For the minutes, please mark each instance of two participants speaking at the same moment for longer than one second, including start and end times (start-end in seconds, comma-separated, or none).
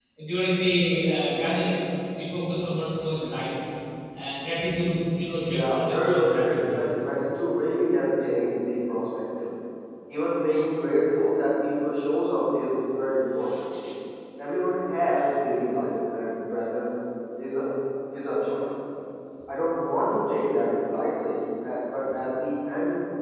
5.4-6.8